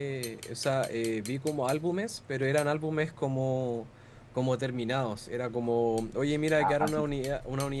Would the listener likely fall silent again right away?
Yes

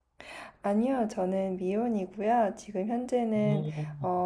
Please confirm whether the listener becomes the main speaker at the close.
No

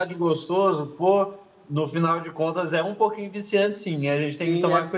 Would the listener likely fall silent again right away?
No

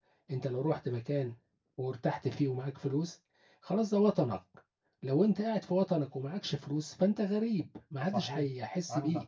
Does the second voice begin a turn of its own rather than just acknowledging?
Yes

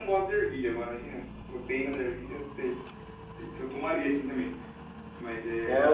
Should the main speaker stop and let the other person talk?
Yes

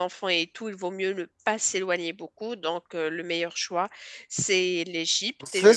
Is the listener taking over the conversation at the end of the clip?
Yes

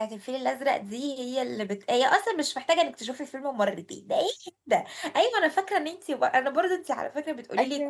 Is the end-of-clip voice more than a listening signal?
No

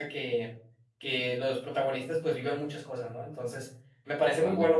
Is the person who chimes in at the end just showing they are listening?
Yes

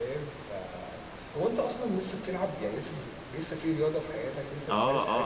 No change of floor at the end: No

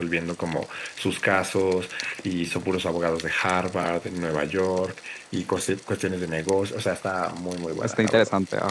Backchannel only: No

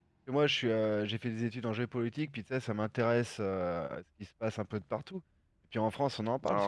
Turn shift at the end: No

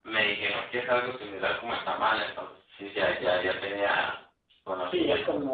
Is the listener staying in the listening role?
No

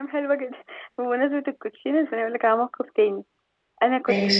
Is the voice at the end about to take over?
No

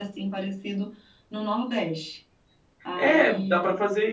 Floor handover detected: Yes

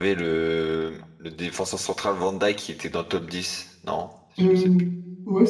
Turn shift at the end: Yes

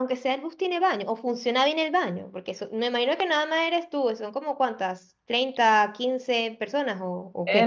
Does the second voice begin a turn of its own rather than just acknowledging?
Yes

